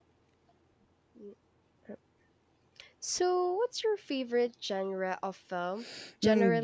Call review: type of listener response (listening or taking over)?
taking over